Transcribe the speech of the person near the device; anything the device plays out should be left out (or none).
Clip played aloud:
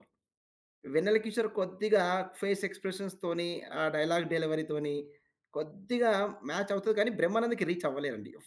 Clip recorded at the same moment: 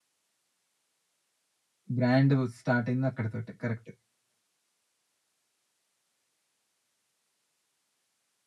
బ్రాండ్ స్టార్ట్ అయింది అక్కడితోటే. కరెక్ట్.